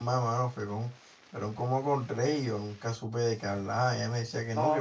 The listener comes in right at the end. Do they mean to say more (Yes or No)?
No